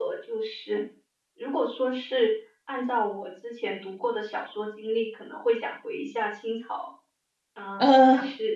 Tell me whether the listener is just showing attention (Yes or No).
No